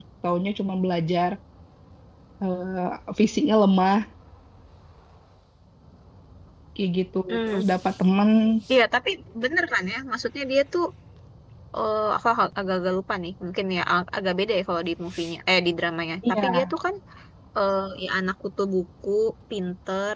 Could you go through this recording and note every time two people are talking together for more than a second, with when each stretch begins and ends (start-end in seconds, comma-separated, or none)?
none